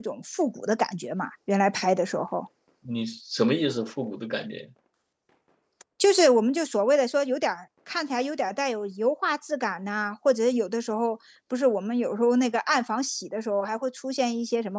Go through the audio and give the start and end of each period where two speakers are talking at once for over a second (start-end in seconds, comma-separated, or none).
none